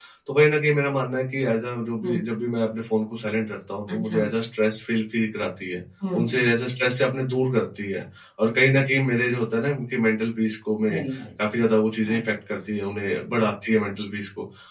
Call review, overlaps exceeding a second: none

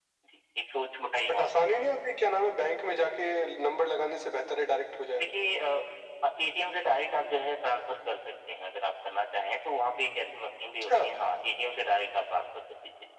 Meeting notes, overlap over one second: none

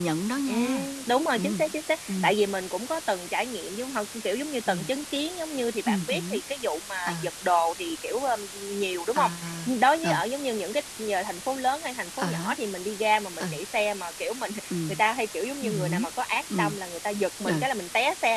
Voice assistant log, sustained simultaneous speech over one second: none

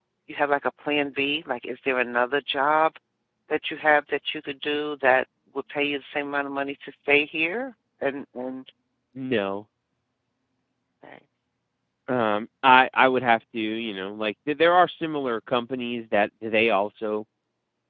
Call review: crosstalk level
none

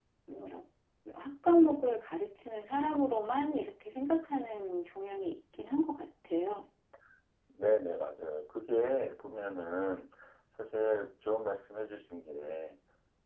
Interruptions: none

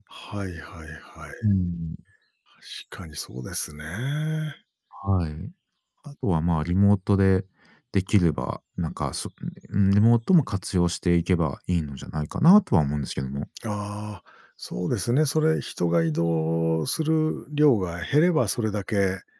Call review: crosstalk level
none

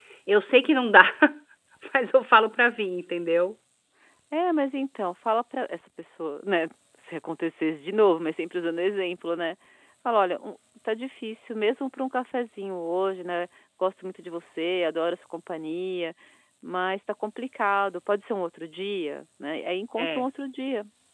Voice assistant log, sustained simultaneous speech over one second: none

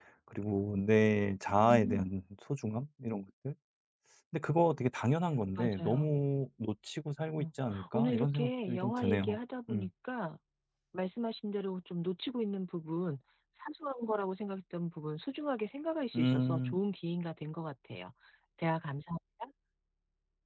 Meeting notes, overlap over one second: present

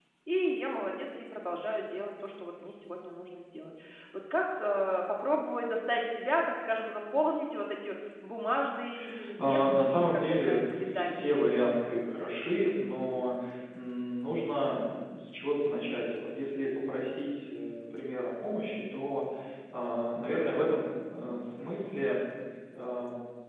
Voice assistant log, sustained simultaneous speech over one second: present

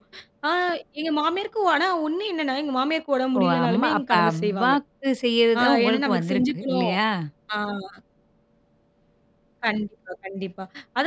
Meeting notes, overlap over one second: present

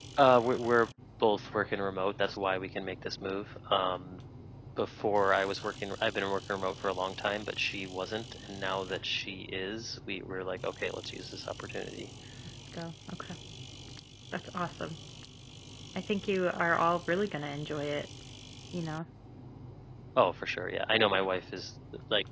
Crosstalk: none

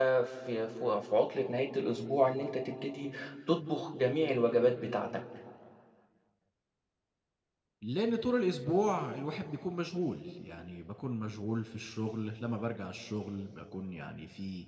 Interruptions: none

